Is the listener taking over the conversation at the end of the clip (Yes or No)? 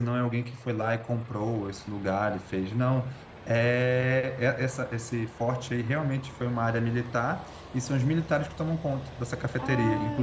Yes